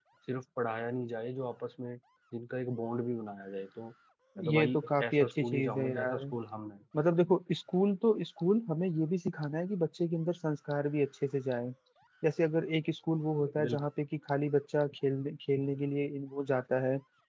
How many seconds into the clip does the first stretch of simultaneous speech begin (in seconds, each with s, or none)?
4.5 s